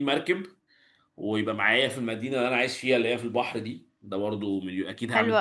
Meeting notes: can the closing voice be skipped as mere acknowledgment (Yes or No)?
No